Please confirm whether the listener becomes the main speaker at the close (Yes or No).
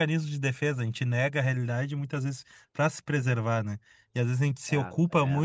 No